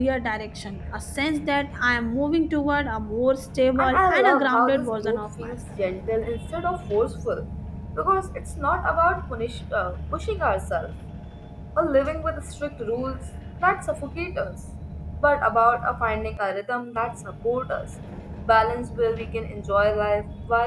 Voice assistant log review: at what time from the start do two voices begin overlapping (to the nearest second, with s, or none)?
4 s